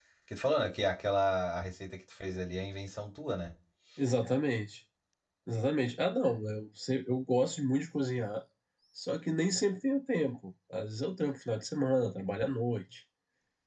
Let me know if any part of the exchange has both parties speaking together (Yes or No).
No